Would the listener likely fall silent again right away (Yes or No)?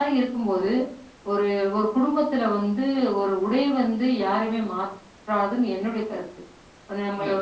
Yes